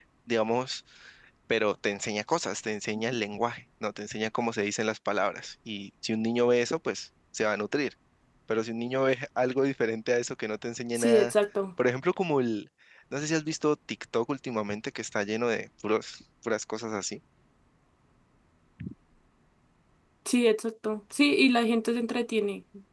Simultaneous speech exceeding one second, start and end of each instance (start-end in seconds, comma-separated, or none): none